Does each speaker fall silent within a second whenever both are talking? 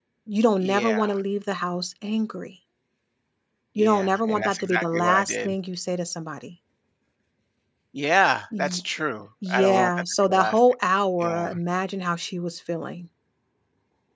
No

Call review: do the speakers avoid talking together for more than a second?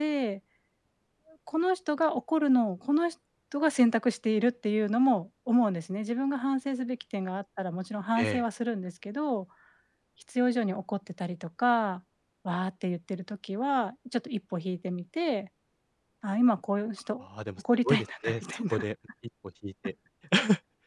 No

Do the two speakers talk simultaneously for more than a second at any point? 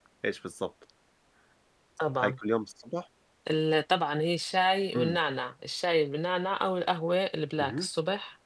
No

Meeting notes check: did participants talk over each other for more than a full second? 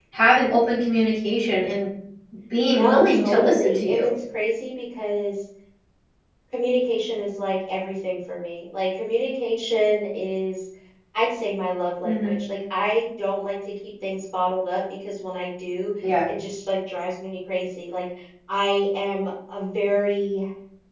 Yes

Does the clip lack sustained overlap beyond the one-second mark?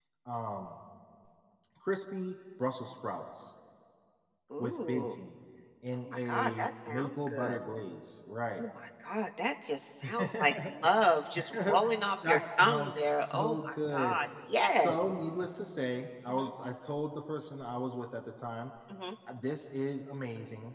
No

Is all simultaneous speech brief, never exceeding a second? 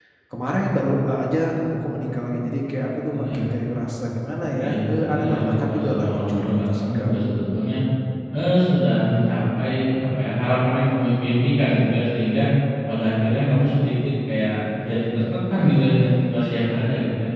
No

